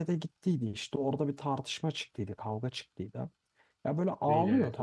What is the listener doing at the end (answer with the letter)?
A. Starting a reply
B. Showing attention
B